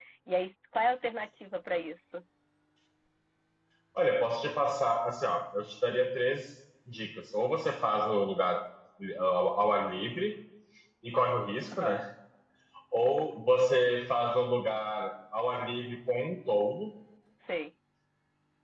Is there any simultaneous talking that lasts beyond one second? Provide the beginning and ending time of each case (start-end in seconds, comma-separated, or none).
none